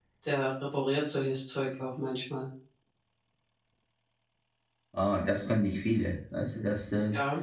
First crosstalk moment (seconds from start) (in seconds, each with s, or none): none